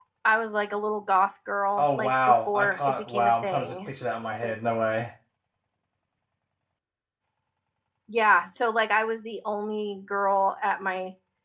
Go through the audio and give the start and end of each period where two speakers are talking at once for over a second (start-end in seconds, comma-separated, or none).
1.8-3.9